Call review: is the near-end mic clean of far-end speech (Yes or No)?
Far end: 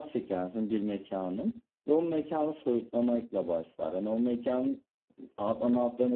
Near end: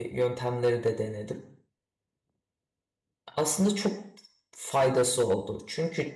Yes